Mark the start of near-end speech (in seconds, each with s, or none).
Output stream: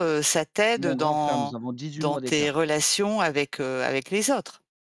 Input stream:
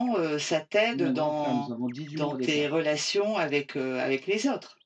none